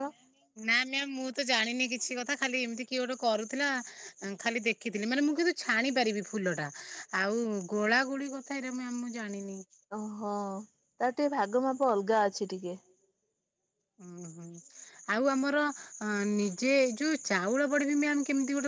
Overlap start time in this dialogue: none

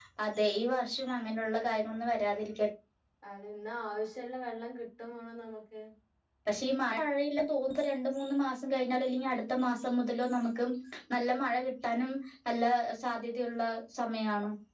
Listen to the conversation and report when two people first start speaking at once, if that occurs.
none

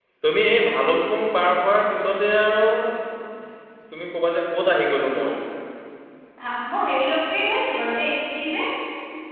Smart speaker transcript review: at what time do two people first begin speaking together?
none

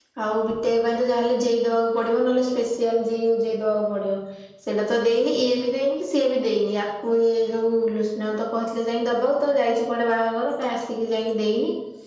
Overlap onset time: none

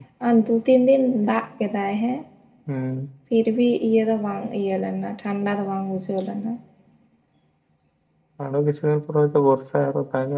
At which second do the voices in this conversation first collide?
none

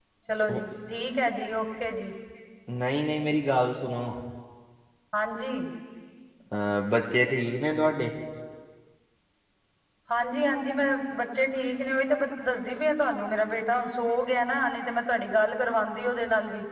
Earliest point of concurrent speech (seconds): none

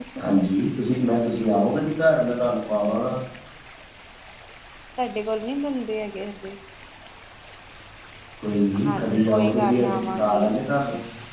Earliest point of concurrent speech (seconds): 8.8 s

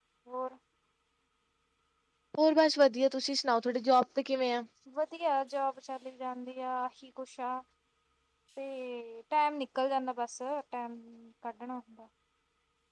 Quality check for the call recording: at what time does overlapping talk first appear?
none

